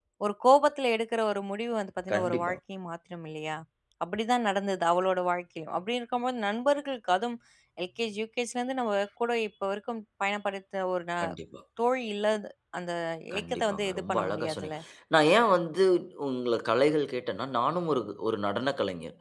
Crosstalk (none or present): present